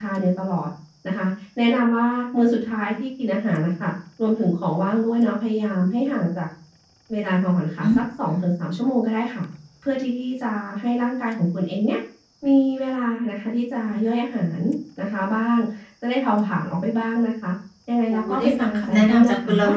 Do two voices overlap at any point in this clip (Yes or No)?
Yes